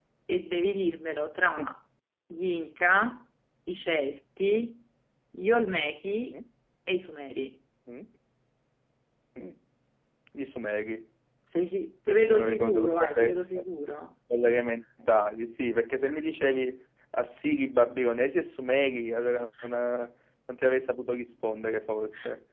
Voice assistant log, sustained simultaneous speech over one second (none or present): present